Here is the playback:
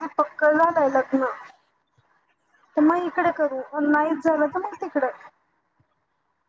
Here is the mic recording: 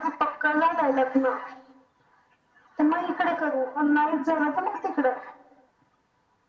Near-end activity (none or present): none